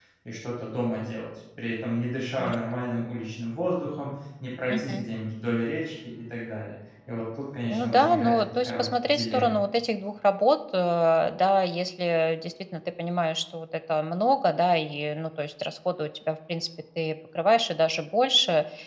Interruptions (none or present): present